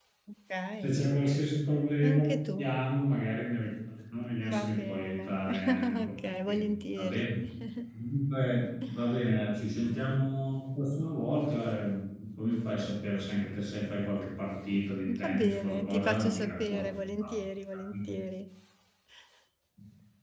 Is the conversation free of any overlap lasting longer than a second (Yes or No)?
No